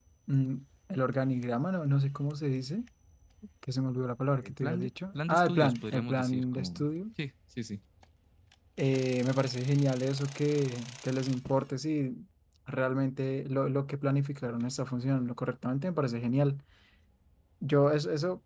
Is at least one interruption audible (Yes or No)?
Yes